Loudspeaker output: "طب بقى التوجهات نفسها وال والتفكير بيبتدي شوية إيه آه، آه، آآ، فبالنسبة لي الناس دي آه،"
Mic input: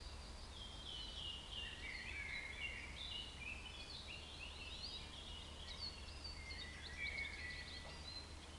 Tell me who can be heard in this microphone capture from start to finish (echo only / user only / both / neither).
neither